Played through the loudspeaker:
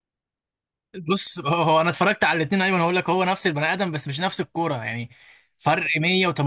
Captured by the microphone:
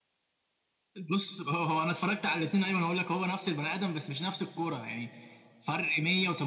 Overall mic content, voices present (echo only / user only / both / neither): echo only